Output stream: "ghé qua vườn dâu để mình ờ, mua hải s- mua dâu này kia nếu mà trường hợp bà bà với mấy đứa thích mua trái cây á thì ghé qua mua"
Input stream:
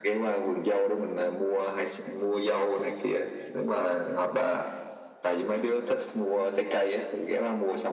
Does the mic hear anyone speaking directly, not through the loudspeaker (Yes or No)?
No